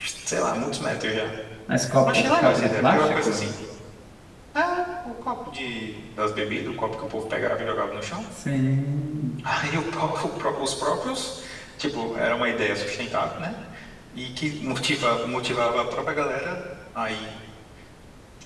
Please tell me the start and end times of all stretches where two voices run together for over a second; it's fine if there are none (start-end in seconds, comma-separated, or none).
2.0-3.5